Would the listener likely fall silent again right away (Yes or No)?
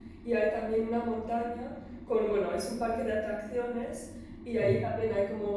Yes